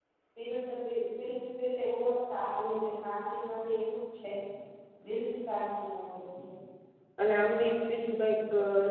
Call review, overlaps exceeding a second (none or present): none